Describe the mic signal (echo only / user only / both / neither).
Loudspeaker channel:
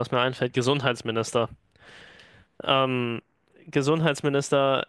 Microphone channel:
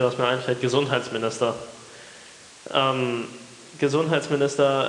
echo only